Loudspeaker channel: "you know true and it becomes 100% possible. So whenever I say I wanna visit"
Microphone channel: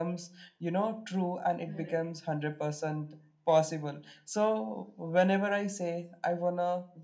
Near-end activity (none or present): present